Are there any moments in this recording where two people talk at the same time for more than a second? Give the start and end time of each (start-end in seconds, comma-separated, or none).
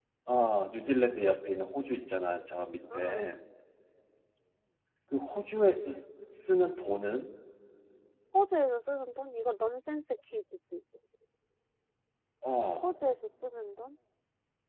none